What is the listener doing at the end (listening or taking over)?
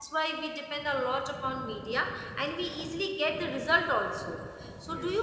listening